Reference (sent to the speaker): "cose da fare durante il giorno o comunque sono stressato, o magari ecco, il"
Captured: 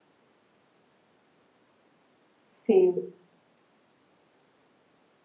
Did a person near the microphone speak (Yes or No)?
Yes